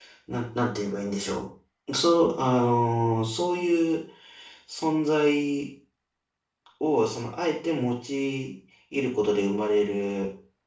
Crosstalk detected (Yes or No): No